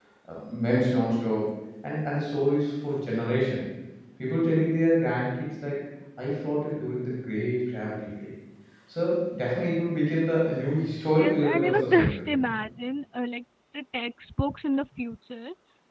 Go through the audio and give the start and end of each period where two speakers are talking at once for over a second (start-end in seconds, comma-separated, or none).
11.2-12.5